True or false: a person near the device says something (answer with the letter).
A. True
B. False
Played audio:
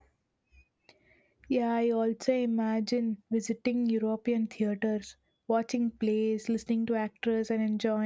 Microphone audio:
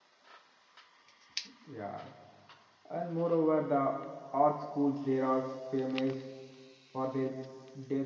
A